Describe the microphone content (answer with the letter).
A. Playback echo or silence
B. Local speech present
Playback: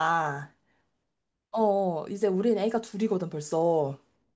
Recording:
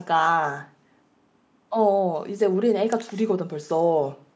A